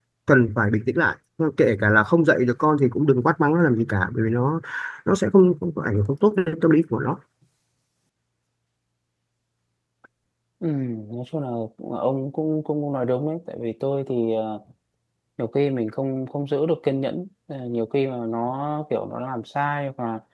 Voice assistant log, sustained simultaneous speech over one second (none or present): none